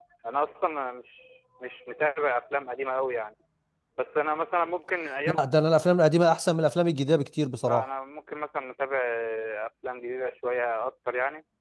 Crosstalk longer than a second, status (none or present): none